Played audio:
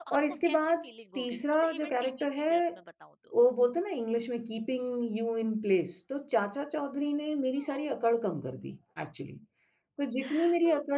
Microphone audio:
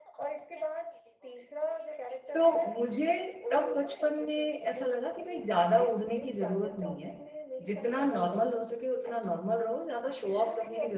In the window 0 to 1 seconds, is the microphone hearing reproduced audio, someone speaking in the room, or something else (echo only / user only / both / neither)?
echo only